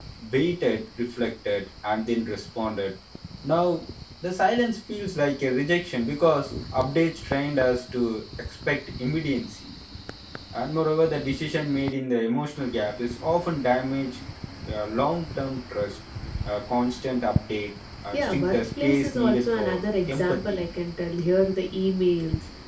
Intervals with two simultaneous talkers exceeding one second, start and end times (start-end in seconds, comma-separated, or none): 18.1-20.6